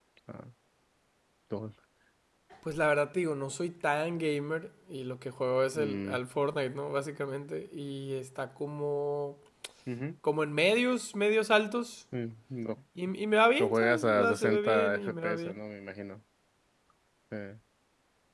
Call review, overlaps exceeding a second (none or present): present